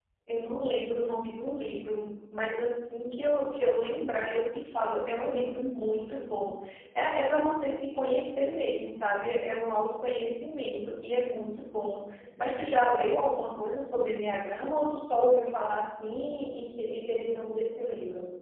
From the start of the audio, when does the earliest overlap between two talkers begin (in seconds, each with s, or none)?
none